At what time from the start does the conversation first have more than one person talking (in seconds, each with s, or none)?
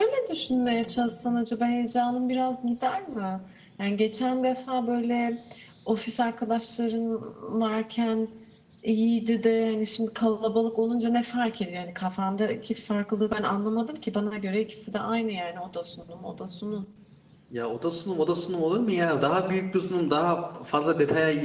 none